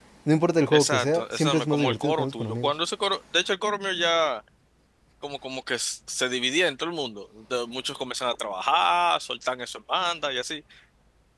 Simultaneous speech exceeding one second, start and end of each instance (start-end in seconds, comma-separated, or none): 0.7-2.7